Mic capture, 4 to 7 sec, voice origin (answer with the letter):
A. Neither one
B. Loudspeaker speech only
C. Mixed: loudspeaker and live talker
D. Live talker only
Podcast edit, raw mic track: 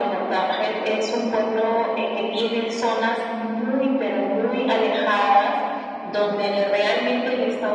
B